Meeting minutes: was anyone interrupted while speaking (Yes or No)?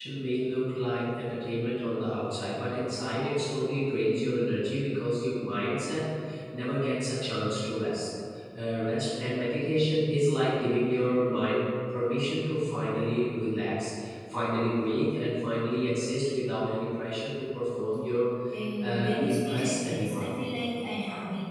Yes